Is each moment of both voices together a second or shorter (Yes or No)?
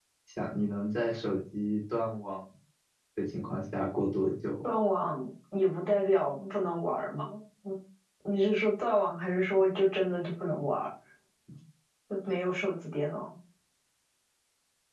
Yes